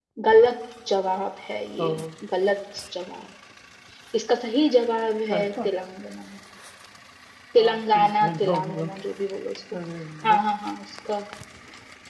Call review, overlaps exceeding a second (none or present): present